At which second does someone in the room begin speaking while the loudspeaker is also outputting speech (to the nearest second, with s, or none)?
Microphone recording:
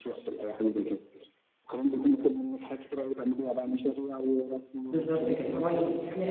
5 s